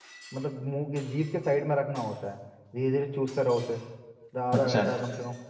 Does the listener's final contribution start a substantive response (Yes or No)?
No